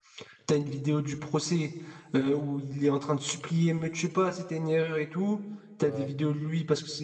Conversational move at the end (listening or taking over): listening